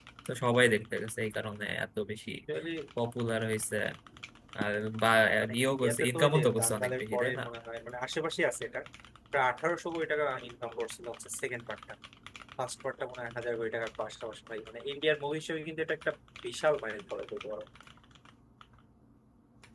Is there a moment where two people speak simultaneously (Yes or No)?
Yes